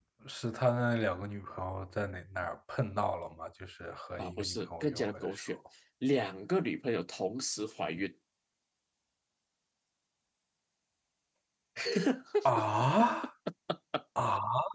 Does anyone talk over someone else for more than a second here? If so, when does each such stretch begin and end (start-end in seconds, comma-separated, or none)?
4.2-5.4